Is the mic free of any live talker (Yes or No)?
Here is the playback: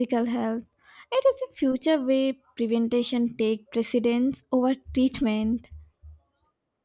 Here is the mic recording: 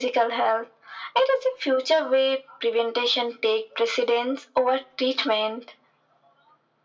Yes